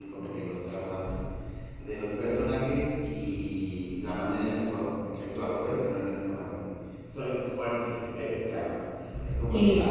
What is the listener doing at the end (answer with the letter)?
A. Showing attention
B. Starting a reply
A